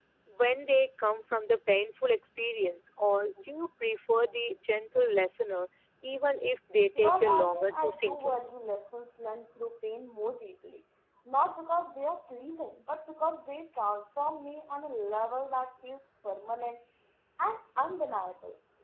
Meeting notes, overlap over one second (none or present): present